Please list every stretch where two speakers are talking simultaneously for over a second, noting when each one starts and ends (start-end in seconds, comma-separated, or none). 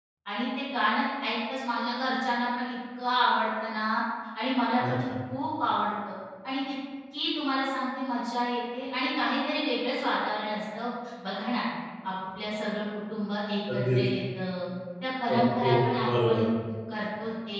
none